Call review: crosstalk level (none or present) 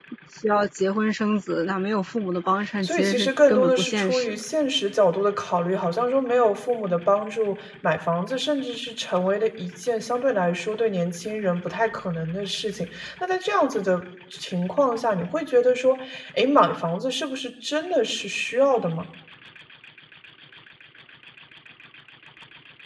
present